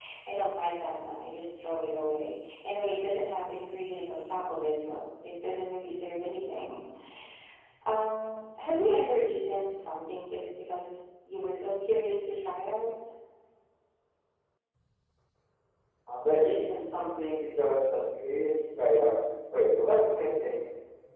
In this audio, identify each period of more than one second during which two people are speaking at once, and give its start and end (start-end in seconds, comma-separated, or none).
none